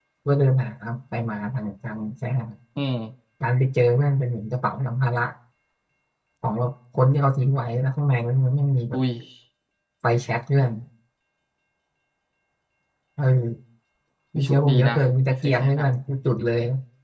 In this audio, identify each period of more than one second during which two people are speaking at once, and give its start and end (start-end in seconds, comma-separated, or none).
14.4-15.9